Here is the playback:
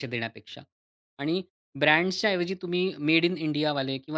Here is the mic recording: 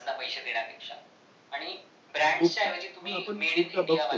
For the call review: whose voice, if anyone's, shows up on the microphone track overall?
both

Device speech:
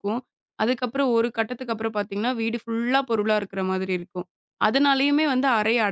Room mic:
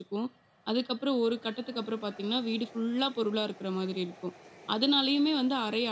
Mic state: echo only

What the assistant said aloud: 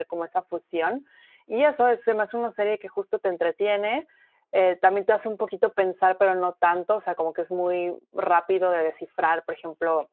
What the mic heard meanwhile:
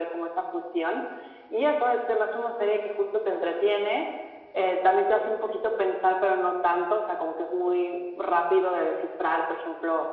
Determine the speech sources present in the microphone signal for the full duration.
echo only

